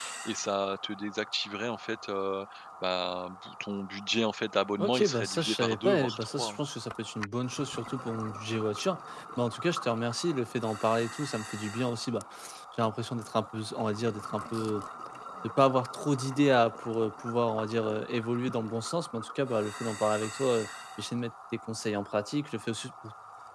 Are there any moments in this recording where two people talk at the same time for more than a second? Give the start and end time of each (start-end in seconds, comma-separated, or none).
4.8-6.6